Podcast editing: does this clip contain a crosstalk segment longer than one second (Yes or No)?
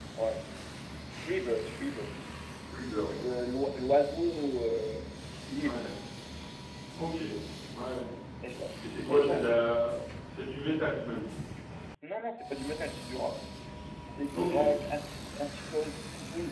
No